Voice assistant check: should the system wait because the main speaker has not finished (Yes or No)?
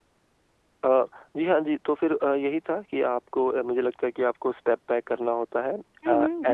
No